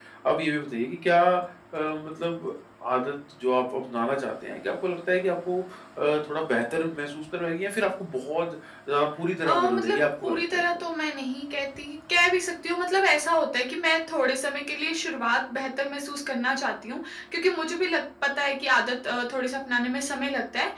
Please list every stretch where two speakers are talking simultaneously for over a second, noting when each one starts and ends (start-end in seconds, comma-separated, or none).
9.4-10.8